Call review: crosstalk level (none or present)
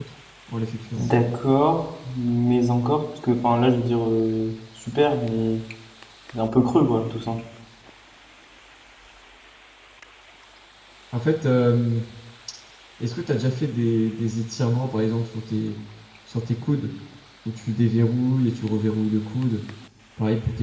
none